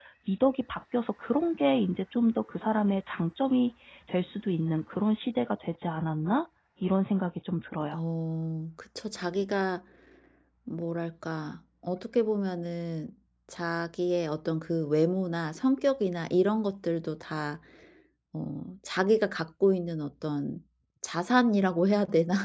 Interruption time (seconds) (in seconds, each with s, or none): none